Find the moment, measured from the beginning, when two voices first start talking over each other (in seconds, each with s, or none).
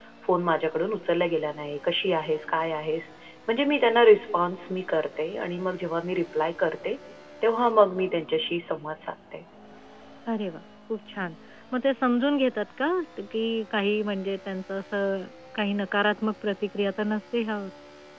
none